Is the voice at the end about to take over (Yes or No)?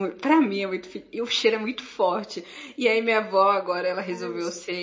No